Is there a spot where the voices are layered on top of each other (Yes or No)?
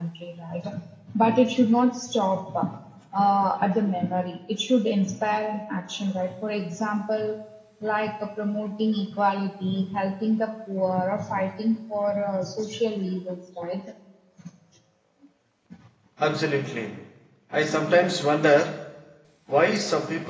No